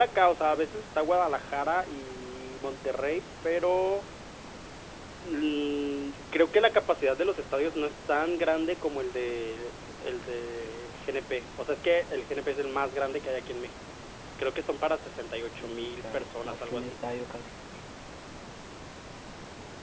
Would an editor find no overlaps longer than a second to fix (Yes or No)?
No